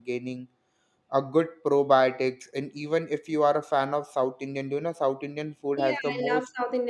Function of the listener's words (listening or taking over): taking over